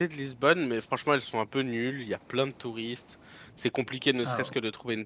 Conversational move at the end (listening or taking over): listening